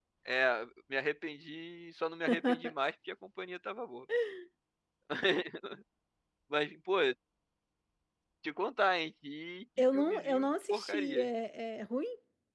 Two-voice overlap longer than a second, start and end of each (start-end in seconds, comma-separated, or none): 9.9-11.3